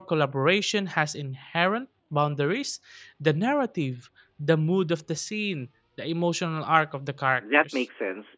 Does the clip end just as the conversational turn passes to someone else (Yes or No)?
Yes